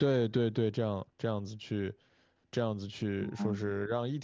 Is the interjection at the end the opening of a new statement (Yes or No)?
No